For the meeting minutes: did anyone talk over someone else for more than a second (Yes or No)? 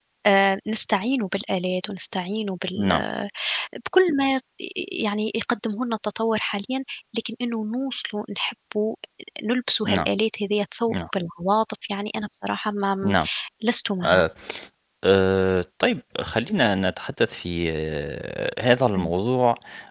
No